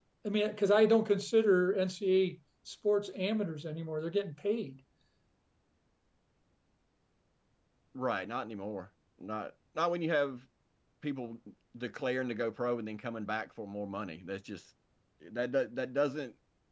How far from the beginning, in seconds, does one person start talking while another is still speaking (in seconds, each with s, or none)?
none